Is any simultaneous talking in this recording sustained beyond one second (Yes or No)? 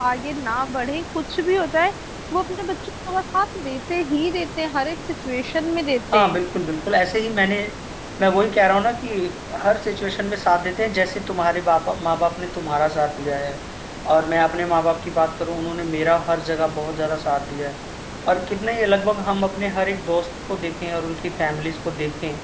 No